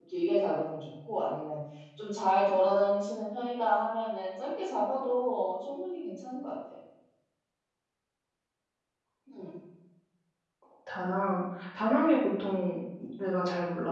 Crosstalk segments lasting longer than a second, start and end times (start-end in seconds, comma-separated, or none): none